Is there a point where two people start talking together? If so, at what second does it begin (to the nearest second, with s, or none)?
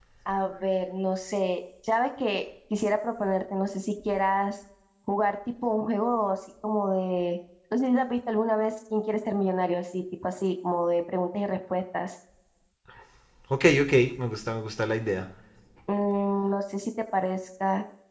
none